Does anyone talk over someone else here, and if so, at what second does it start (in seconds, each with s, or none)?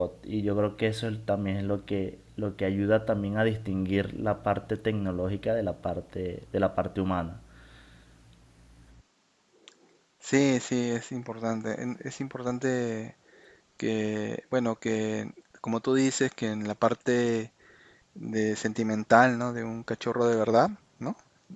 none